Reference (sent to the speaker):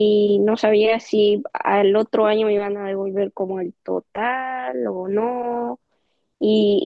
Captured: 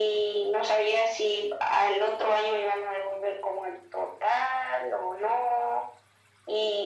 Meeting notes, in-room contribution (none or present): none